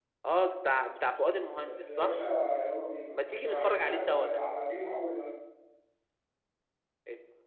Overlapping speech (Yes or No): Yes